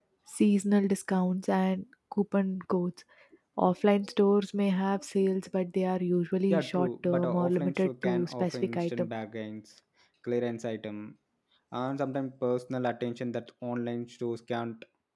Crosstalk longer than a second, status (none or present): present